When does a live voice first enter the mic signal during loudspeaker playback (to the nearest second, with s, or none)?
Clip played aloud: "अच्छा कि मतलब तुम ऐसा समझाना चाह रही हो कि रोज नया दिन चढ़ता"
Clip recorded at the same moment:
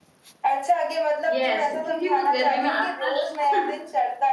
1 s